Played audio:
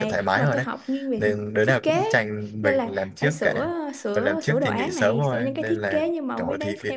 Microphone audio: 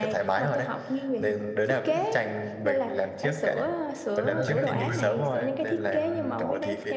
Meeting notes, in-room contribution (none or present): present